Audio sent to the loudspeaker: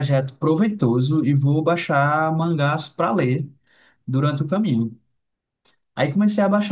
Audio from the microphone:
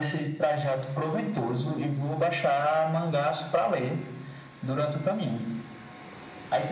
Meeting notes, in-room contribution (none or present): none